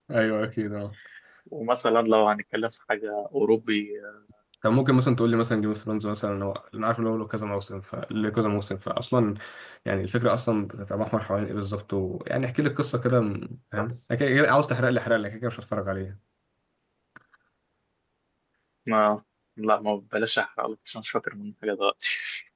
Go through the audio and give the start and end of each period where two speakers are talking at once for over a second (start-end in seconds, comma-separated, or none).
none